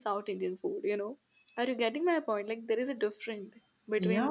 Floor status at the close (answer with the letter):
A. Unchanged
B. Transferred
B